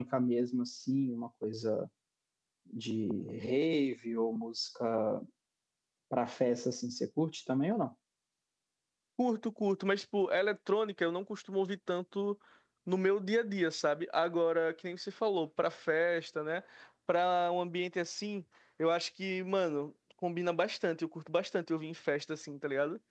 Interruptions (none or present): none